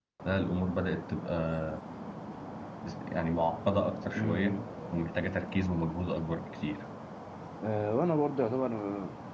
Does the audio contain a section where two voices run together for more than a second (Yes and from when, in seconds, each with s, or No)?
No